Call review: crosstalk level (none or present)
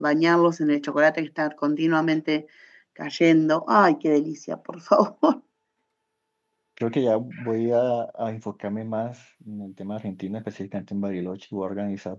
none